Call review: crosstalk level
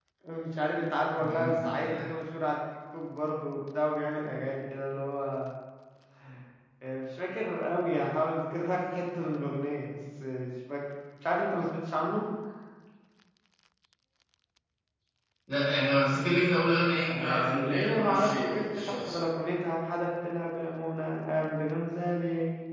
present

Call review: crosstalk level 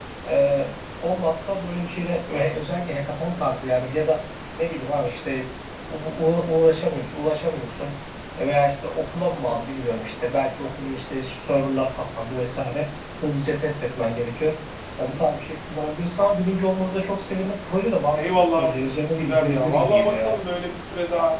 present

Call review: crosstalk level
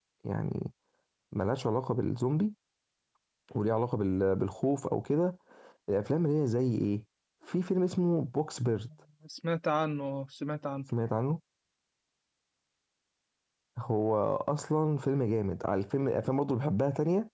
none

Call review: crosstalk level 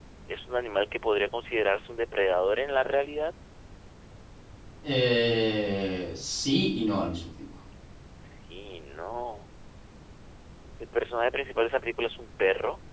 none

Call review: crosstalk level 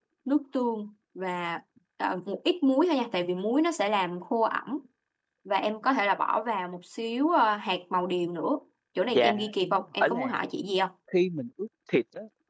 present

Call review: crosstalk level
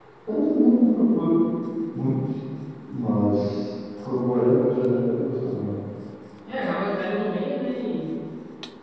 none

